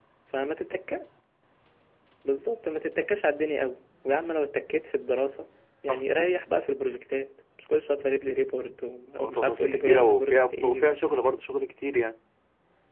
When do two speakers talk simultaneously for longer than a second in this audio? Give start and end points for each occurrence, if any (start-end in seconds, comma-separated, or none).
9.2-10.9